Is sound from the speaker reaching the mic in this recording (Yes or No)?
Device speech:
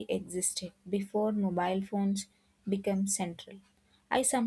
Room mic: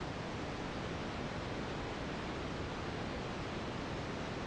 No